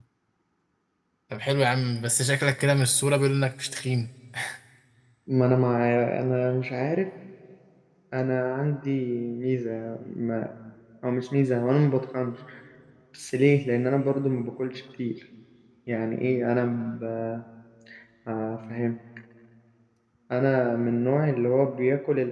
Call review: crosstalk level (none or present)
none